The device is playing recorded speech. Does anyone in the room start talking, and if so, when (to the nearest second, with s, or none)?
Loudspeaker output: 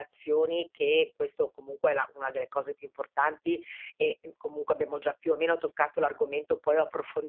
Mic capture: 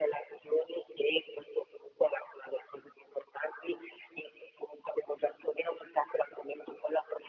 none